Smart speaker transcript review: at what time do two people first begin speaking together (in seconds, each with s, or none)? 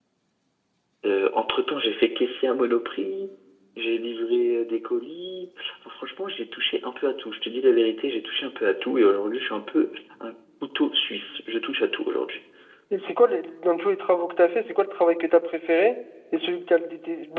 none